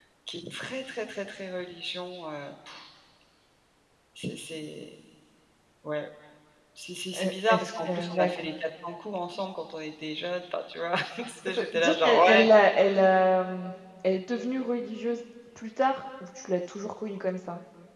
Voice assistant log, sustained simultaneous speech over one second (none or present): present